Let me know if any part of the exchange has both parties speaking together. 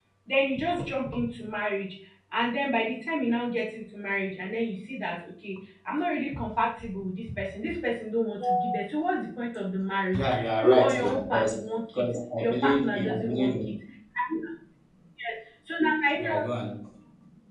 Yes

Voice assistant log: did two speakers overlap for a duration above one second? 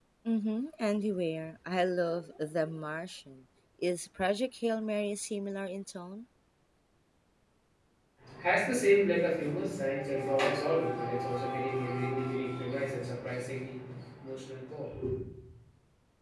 No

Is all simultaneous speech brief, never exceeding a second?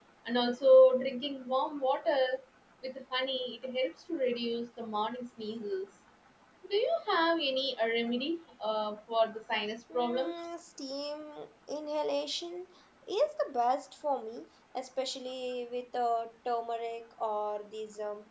Yes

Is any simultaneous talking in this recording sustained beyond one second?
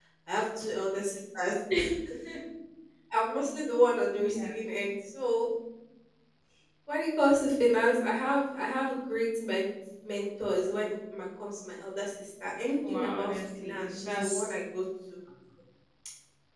Yes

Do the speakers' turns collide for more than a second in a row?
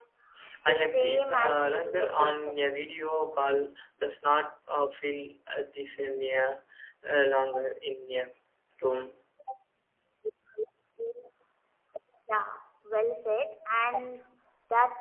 Yes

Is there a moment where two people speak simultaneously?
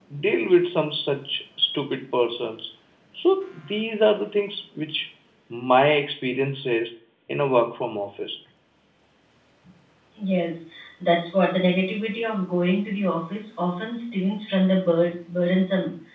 No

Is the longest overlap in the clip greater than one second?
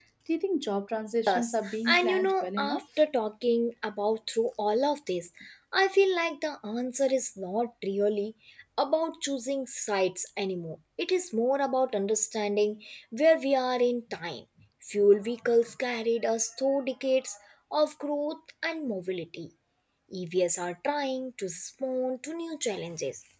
Yes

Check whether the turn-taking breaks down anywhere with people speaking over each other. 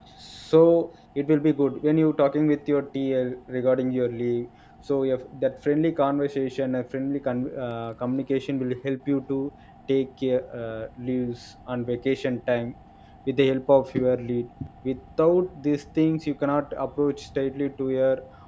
No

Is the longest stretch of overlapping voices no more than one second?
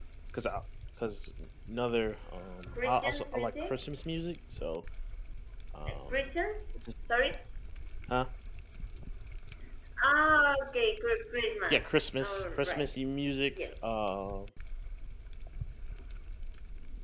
No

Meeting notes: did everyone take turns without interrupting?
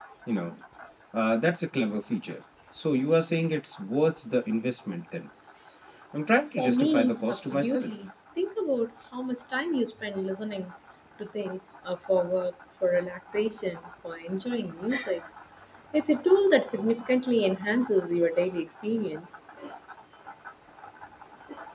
No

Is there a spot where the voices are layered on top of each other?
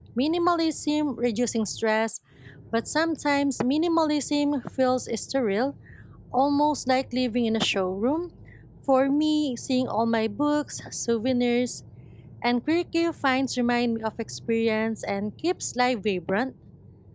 No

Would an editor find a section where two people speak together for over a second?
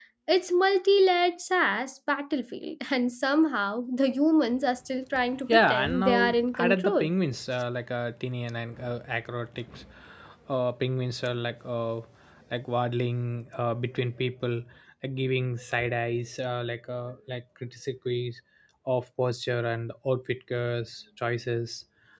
Yes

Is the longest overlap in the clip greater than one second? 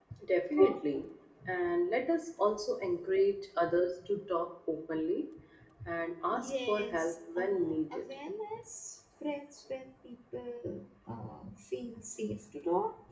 Yes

